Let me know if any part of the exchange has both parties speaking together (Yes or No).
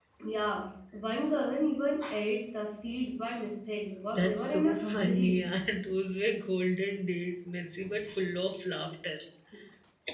Yes